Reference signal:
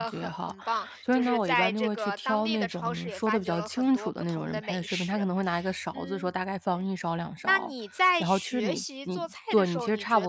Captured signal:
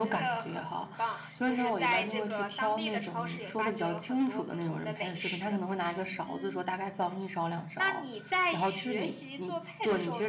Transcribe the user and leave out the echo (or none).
none